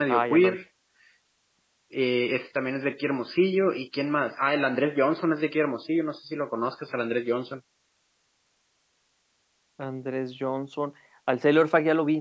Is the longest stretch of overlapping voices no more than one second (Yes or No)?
Yes